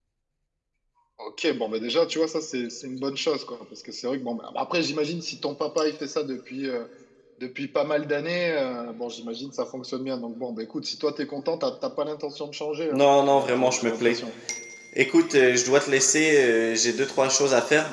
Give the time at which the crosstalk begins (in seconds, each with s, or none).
12.9 s